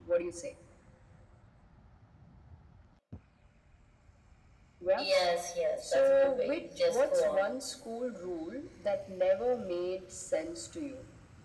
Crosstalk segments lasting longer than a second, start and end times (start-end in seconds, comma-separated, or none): 5.8-7.5